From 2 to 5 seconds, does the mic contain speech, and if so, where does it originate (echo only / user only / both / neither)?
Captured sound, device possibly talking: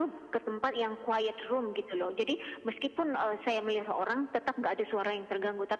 echo only